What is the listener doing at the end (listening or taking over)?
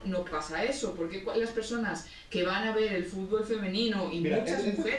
taking over